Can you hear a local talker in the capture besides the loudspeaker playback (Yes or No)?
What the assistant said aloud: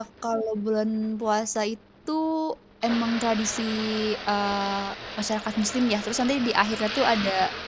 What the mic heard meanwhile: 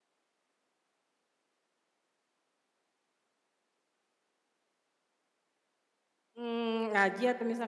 Yes